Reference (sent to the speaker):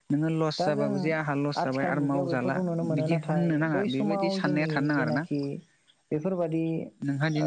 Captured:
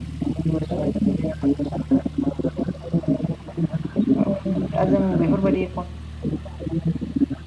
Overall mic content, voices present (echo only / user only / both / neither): both